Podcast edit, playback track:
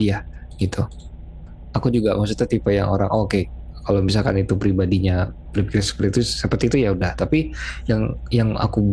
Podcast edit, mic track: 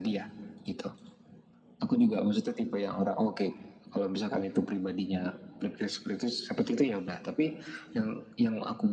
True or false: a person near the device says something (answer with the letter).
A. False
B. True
A